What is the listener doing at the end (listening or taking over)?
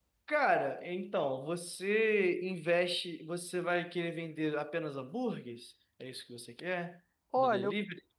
taking over